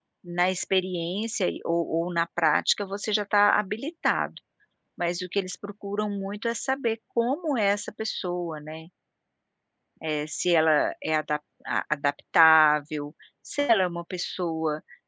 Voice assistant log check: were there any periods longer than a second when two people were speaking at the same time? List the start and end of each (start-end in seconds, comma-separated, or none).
none